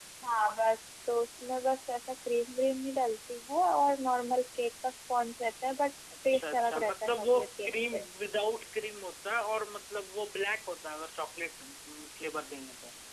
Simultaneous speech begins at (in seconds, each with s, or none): 6.3 s